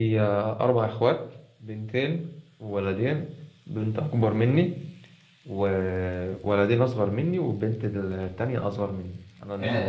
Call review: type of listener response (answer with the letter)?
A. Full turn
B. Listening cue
A